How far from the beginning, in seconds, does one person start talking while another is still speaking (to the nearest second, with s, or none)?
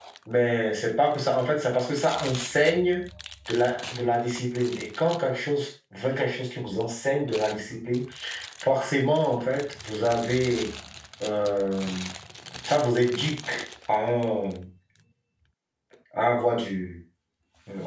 none